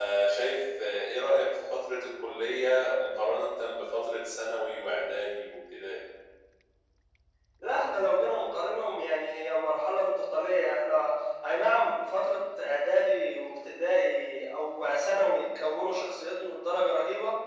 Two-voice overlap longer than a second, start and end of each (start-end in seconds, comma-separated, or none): none